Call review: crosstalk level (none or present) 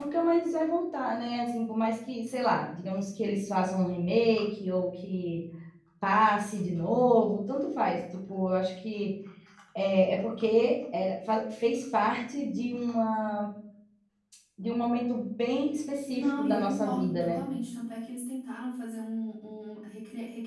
present